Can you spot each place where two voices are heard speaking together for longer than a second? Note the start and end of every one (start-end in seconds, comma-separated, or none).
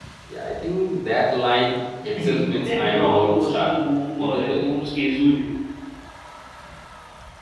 2.2-3.8